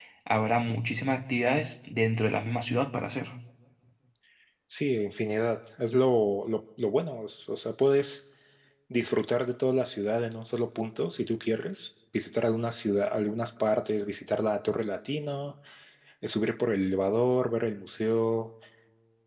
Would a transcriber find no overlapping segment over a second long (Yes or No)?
Yes